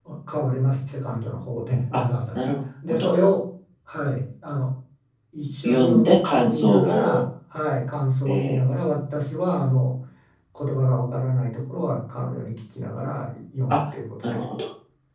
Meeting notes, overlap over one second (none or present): present